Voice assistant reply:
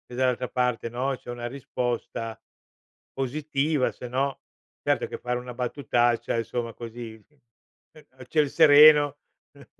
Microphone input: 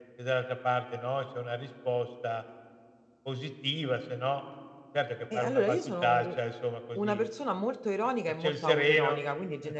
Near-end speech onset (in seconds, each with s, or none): 5.3 s